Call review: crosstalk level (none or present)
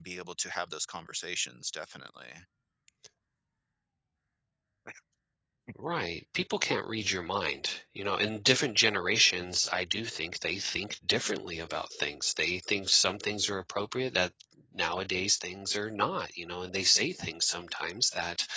none